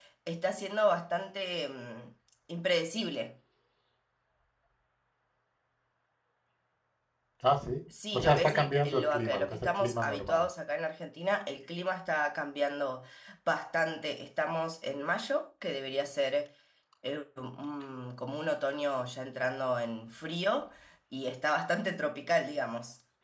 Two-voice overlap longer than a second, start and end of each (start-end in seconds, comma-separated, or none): 8.1-10.4